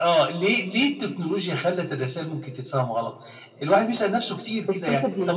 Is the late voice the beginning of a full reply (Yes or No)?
No